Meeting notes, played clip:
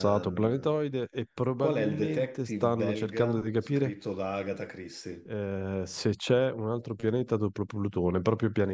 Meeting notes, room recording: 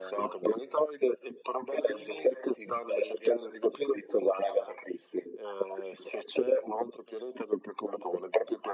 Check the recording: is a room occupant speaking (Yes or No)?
No